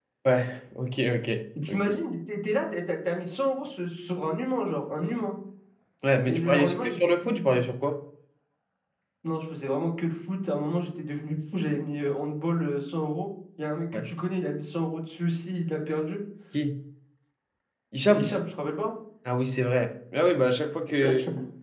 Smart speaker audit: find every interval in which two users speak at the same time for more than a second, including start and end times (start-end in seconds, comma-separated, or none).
6.3-7.6